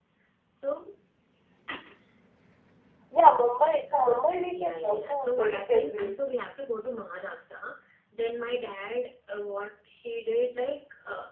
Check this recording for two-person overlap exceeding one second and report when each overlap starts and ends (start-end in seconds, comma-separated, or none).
3.9-6.2